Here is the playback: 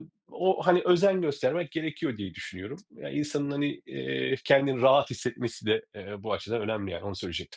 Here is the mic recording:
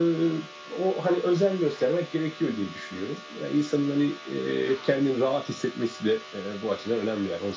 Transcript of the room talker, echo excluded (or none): none